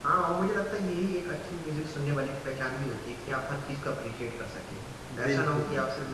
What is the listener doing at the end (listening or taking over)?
listening